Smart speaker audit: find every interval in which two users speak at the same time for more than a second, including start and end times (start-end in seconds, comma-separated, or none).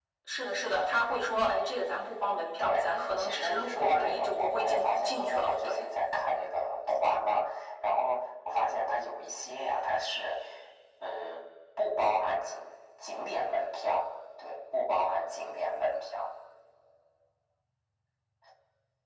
2.6-5.8